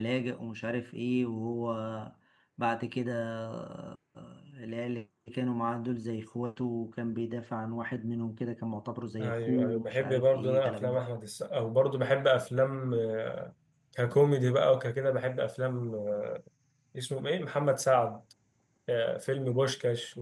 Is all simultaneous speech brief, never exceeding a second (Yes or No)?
No